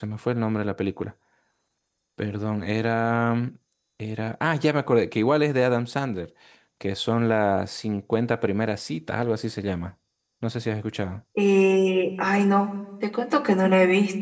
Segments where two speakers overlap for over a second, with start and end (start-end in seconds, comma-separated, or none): none